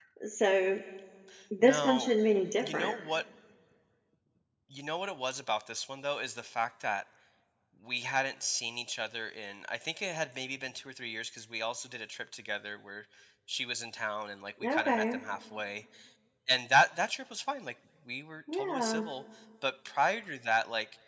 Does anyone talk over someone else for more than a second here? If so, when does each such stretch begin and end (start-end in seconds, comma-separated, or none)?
none